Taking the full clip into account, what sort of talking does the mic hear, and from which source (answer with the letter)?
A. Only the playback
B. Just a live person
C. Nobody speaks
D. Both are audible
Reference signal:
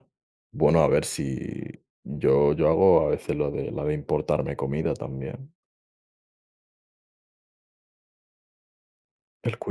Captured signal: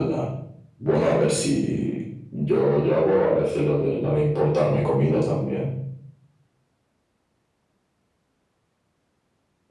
A